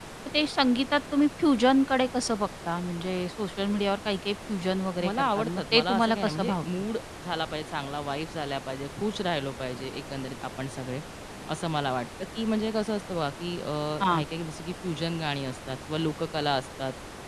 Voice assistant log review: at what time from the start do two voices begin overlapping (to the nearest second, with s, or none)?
5 s